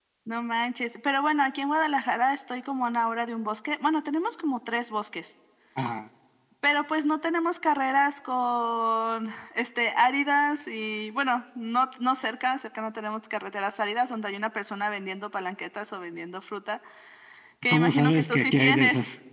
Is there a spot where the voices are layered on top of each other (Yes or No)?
Yes